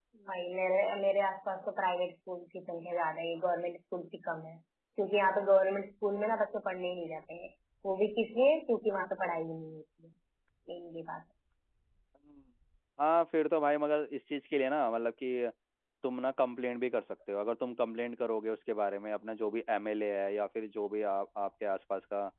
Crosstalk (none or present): none